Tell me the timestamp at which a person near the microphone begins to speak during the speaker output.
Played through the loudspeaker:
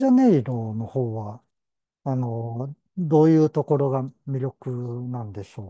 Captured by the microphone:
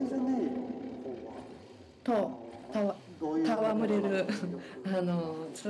2.0 s

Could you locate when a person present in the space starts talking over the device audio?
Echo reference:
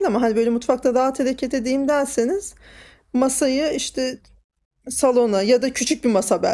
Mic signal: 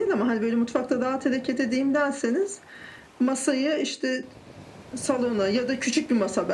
none

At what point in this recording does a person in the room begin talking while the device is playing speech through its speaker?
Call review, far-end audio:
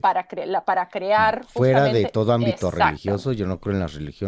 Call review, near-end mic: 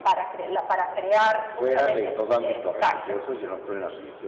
none

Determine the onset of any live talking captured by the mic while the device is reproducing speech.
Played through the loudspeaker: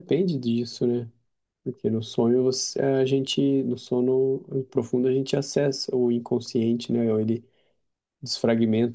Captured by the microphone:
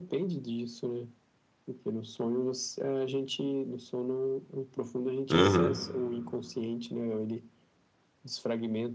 5.3 s

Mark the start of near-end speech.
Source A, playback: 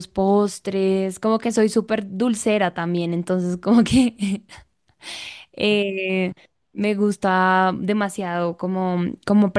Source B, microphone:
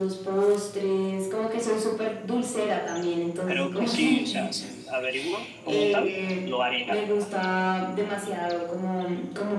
3.4 s

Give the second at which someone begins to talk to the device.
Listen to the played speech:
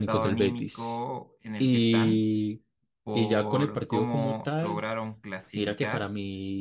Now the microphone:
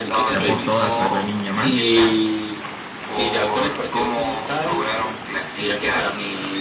0.3 s

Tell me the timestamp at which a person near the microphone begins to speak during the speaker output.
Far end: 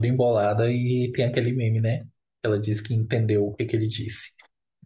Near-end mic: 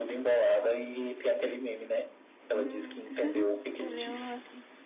2.5 s

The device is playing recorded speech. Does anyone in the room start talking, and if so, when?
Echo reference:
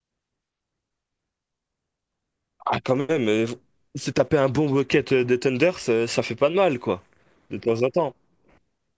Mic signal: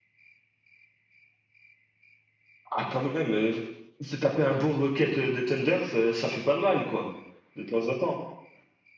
none

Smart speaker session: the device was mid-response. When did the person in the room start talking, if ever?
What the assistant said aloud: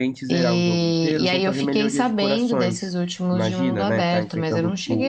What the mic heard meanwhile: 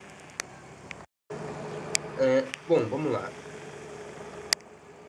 2.2 s

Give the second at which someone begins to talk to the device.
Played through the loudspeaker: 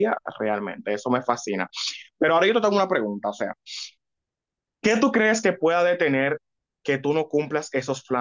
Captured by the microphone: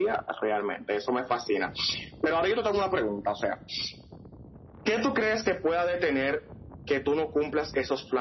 none

